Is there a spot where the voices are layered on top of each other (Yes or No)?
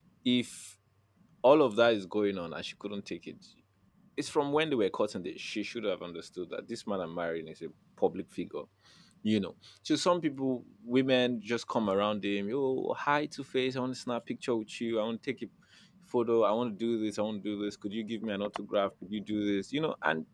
No